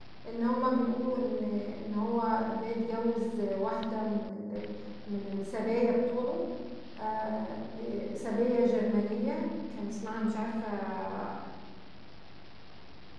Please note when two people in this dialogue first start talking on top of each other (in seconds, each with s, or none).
none